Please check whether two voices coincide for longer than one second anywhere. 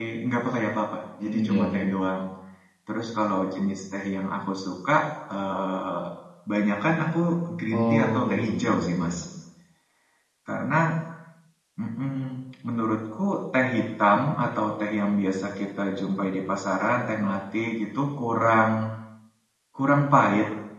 Yes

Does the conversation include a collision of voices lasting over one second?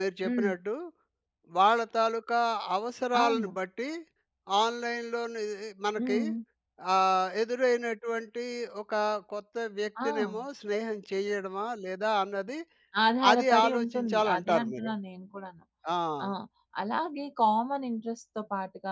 Yes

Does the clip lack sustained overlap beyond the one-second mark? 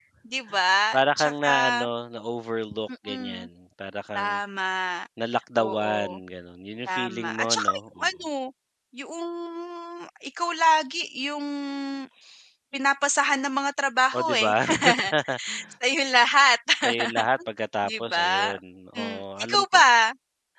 No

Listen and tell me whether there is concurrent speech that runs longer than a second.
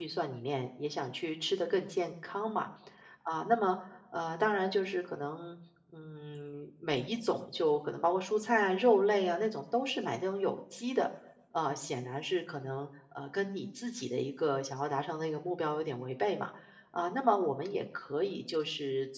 No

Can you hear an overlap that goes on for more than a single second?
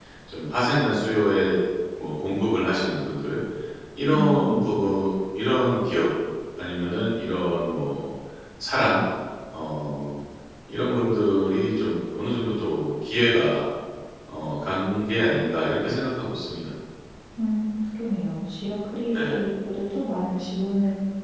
No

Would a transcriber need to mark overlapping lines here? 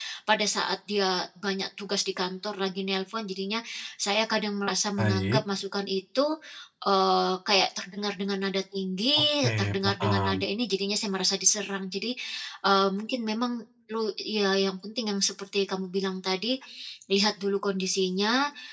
Yes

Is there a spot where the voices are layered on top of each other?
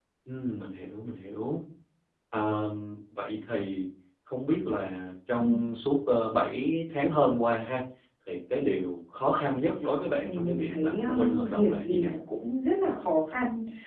Yes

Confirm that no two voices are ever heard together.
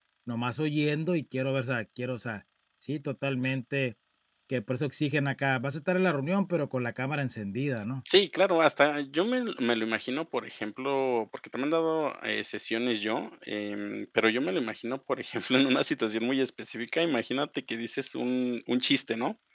Yes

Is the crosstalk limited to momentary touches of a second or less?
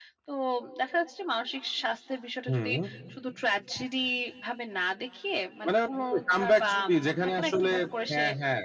No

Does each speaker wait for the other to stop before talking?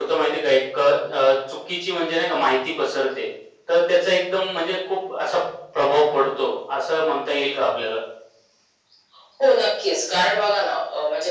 Yes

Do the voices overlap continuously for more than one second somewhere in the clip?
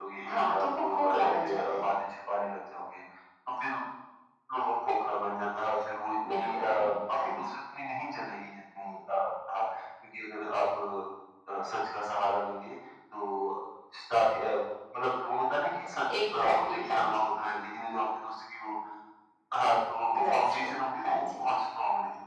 Yes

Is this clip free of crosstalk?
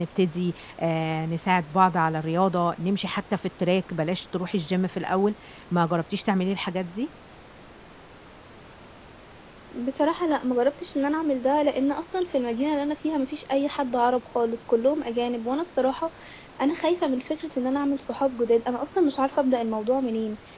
Yes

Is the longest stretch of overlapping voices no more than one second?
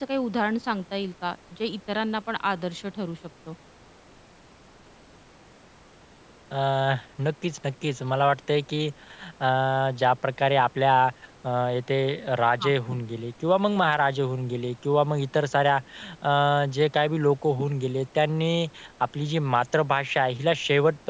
Yes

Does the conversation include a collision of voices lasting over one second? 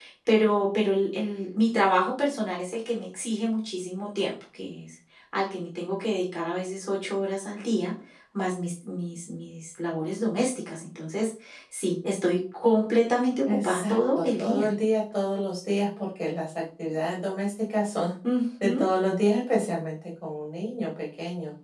Yes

